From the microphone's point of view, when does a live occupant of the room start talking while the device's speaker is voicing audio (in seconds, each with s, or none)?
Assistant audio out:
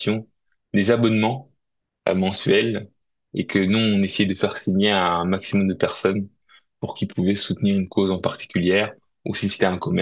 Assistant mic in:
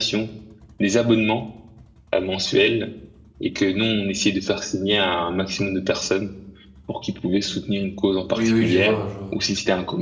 8.3 s